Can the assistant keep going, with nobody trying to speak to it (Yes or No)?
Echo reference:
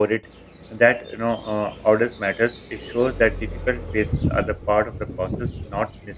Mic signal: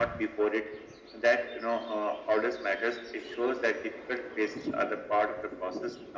Yes